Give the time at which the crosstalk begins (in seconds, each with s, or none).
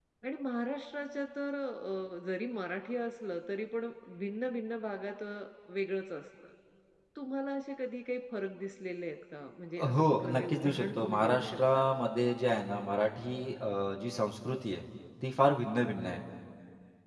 9.8 s